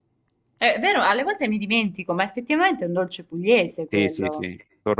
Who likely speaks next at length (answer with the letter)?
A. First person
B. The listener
B